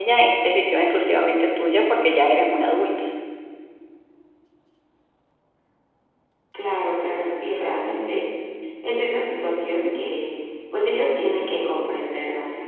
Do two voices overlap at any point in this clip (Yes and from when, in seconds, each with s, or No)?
No